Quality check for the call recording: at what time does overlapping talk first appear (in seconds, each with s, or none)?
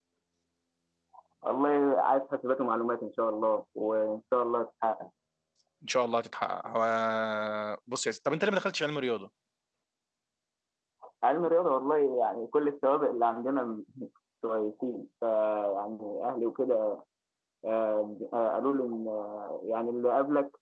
none